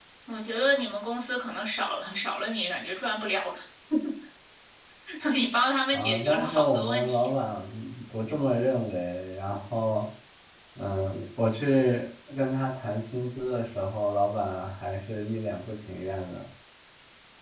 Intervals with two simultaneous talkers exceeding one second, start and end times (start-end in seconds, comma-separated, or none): 5.9-7.3